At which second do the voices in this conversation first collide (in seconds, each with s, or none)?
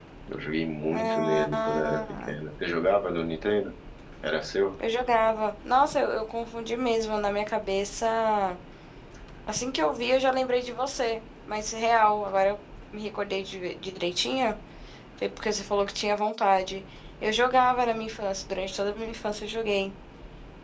0.9 s